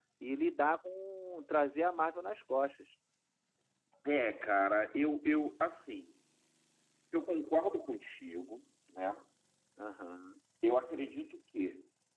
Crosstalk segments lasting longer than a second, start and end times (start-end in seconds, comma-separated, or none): none